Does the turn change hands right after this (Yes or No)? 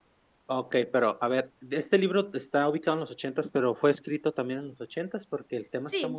Yes